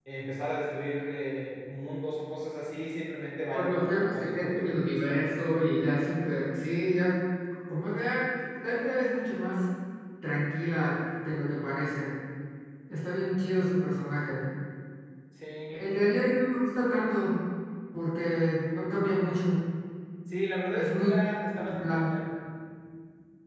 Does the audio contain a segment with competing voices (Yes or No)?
Yes